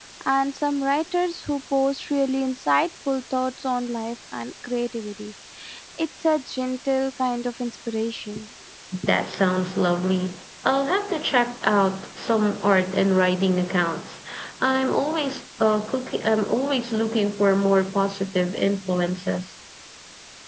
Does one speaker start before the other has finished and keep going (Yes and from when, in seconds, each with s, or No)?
No